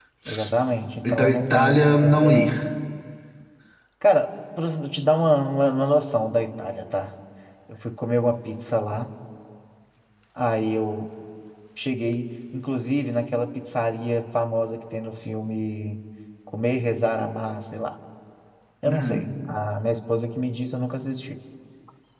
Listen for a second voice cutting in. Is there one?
Yes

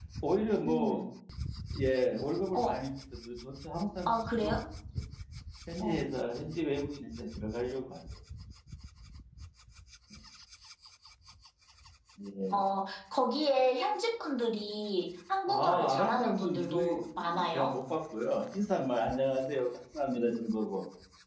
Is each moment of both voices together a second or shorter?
No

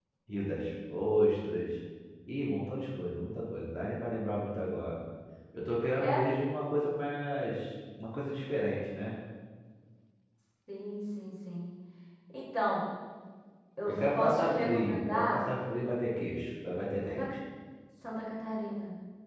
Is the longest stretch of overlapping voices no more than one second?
No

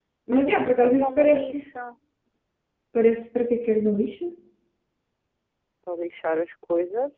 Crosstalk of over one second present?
Yes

